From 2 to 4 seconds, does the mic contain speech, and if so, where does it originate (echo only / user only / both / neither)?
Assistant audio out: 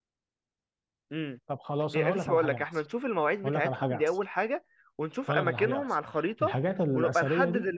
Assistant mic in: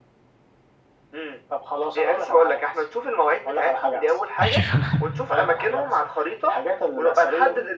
echo only